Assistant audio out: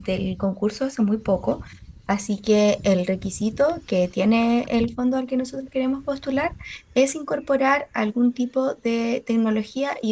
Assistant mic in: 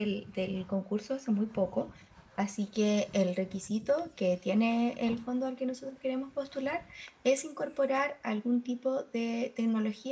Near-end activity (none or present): none